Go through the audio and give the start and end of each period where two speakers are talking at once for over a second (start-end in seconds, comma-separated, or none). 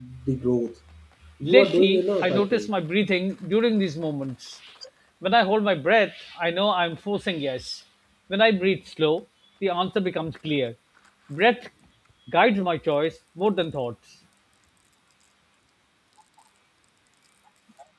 1.4-2.7